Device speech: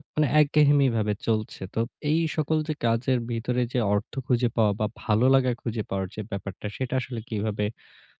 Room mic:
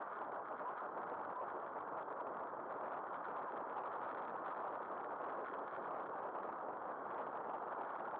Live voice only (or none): none